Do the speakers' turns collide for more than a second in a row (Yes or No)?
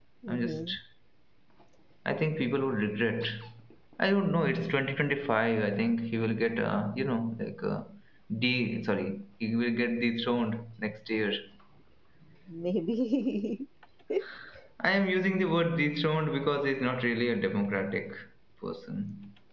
No